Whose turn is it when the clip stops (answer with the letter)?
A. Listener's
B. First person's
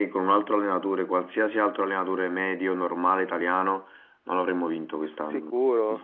A